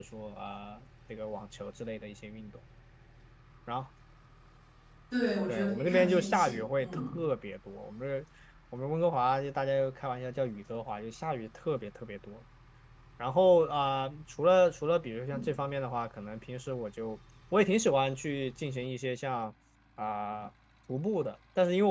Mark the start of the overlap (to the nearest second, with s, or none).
5 s